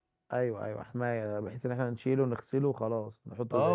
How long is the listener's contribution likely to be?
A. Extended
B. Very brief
A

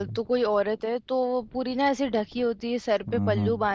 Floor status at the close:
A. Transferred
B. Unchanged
B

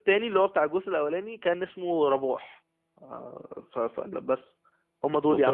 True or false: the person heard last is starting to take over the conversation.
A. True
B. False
A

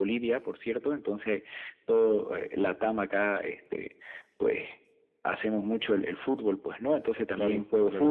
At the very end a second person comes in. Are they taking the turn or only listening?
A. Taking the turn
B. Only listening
B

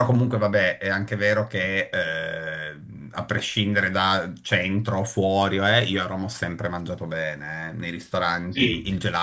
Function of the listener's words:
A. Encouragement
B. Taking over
A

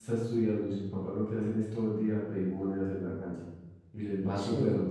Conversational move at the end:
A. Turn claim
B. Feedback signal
B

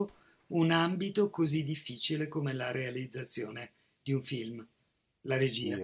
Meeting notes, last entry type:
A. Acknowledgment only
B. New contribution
B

